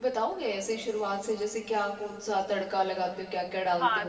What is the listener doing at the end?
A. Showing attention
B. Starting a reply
B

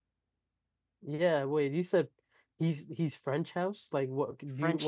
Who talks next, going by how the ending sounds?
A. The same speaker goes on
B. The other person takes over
B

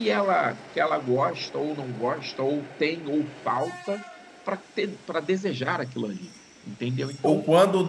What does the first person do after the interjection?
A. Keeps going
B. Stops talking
B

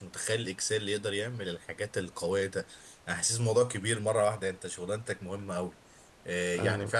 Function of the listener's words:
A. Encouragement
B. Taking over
A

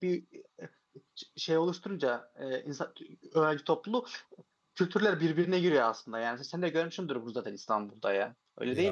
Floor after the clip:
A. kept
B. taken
B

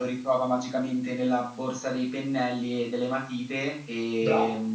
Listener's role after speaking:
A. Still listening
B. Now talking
B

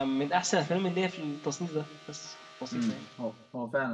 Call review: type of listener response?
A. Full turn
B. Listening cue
A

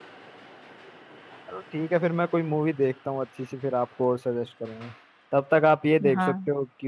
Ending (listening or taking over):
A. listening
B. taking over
A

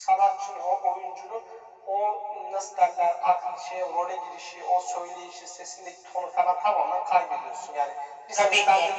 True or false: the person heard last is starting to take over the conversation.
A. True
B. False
B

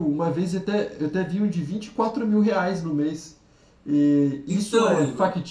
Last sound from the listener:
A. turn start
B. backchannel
B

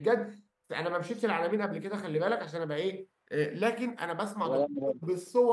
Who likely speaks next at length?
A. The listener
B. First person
B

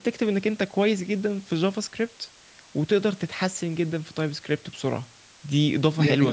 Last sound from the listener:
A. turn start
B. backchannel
A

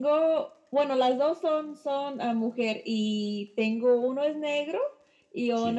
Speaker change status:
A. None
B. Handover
A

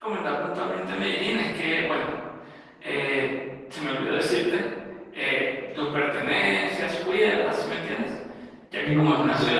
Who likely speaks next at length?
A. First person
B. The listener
A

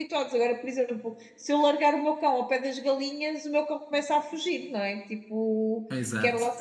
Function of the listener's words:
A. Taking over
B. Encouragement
B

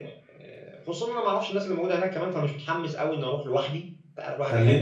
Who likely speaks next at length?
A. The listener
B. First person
A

